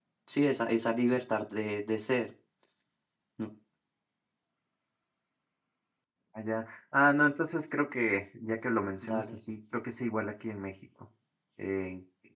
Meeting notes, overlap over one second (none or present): none